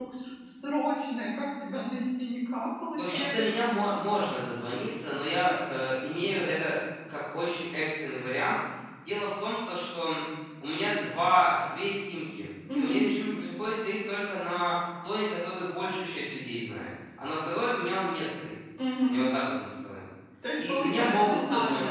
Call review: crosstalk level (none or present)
present